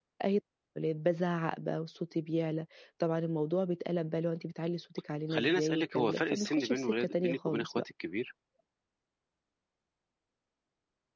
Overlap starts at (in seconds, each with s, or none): 5.3 s